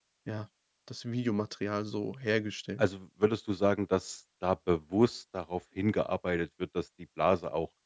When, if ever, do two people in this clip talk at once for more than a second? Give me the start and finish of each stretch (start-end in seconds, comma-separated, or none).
none